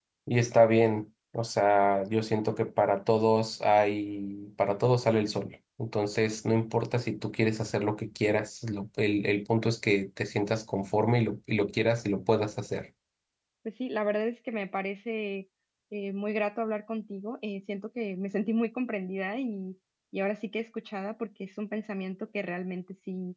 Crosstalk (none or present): none